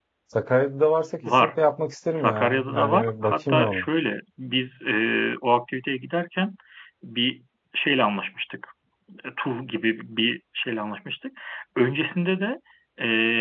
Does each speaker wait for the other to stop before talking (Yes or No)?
No